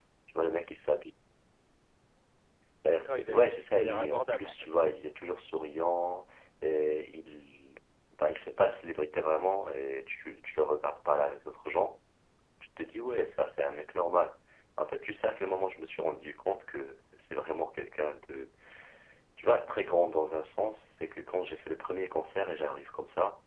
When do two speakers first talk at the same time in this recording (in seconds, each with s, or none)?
2.9 s